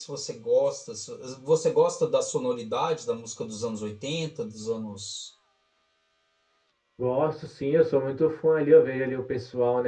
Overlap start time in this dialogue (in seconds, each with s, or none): none